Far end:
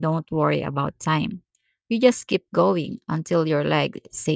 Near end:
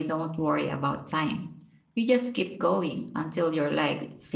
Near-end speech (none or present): none